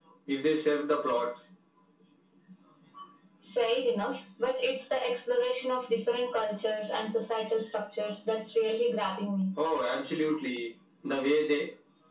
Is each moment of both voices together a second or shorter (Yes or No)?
Yes